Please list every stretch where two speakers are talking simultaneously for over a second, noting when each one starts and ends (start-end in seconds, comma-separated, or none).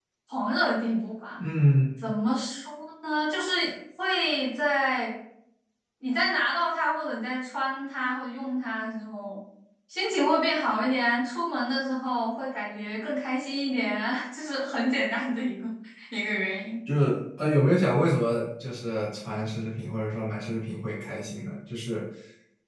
none